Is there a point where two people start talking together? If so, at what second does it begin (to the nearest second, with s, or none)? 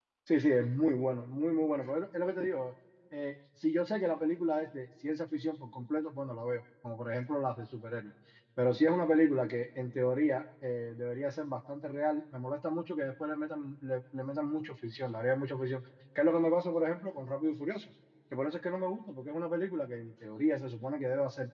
none